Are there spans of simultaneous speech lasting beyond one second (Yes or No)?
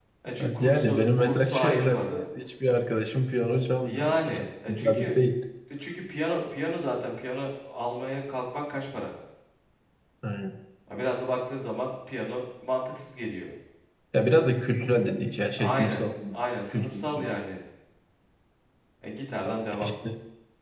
Yes